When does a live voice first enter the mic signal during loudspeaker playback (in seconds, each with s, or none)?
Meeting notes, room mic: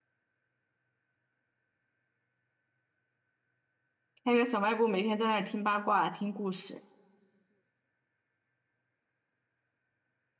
4.2 s